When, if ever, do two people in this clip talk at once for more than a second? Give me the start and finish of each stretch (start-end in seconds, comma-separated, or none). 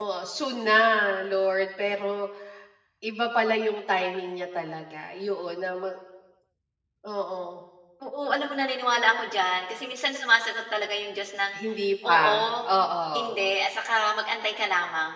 none